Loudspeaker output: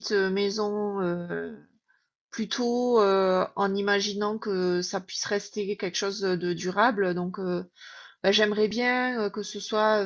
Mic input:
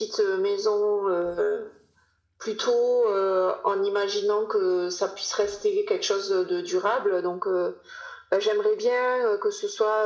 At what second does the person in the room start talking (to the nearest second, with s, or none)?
none